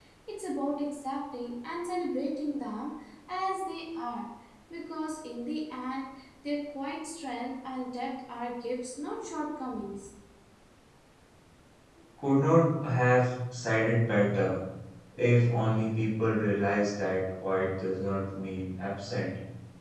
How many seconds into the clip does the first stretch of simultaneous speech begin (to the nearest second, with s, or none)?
none